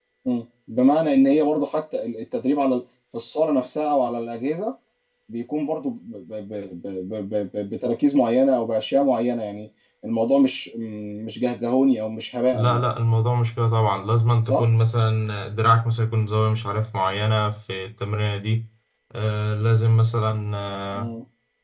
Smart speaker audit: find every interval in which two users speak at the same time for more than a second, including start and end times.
none

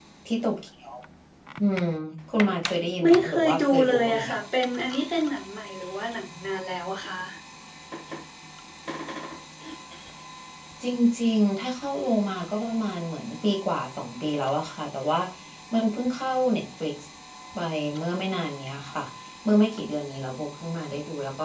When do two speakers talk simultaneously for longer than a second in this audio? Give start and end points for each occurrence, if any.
3.0-4.2

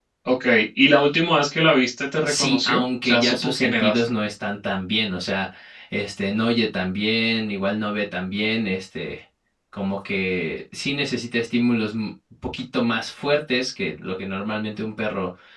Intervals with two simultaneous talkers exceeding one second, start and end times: 2.2-4.0

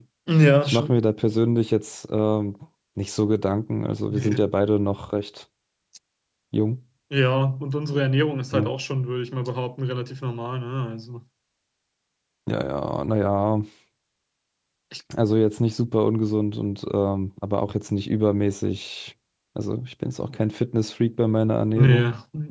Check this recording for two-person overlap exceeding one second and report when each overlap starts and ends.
none

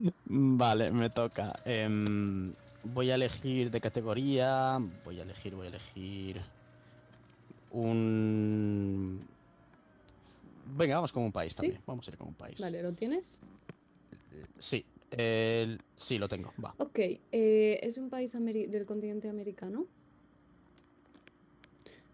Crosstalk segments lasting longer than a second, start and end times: none

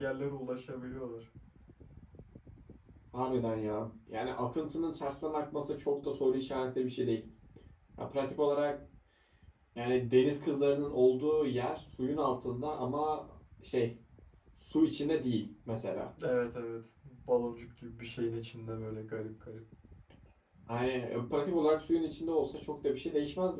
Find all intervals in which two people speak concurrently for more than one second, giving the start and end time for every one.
none

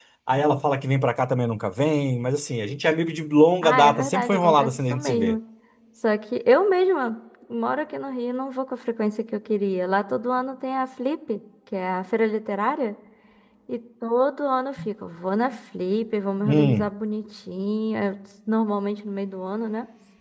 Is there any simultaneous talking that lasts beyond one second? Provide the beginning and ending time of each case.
3.6-5.4

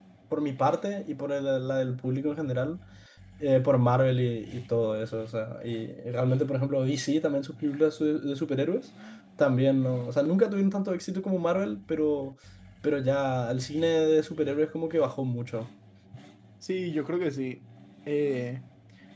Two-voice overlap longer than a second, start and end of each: none

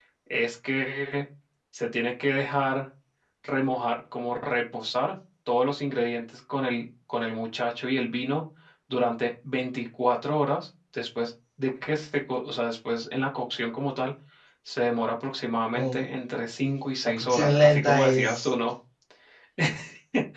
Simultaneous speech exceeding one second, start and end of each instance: 17.1-18.5

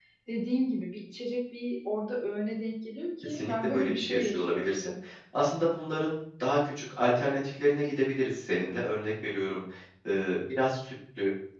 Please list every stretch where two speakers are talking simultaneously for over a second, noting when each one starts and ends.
3.2-4.8

